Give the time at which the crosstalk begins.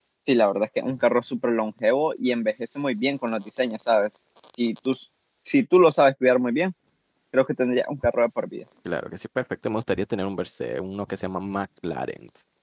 none

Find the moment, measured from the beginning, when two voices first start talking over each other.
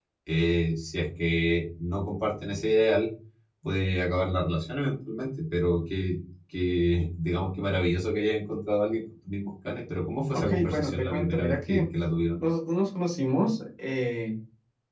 10 s

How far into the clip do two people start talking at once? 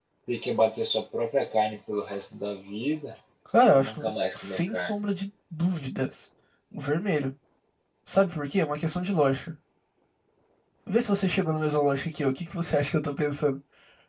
4 s

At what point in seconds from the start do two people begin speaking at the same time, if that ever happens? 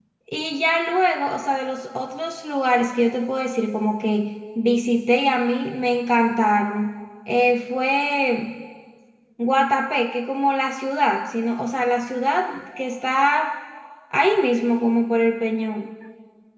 none

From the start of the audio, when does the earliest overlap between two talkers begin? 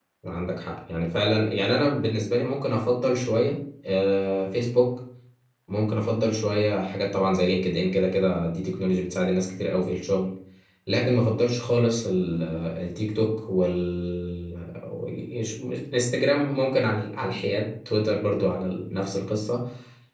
none

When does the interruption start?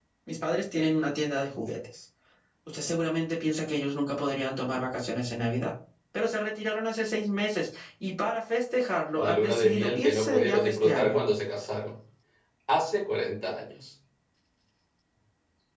9 s

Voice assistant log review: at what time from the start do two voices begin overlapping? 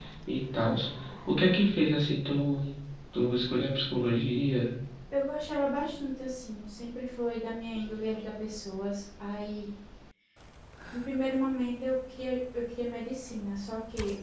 none

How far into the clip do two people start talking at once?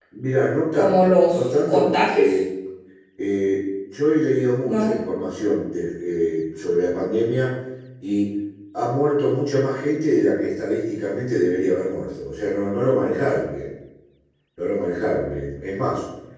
1 s

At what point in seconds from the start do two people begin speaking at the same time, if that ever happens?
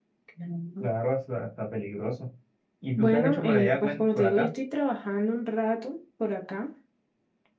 3 s

